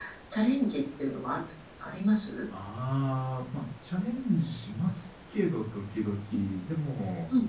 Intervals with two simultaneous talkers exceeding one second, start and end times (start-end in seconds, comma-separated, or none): none